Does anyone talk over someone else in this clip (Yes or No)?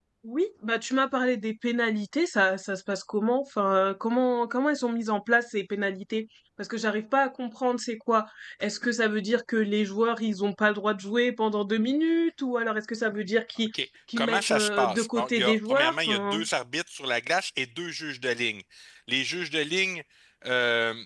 Yes